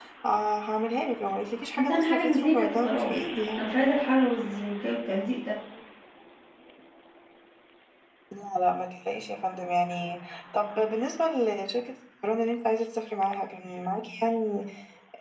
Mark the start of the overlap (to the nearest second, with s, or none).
2 s